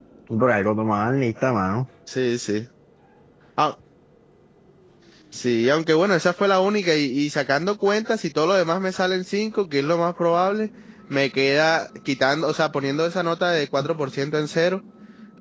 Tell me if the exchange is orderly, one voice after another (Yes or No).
Yes